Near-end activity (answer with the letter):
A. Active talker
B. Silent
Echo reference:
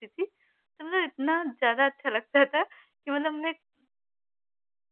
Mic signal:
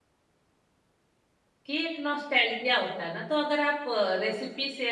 A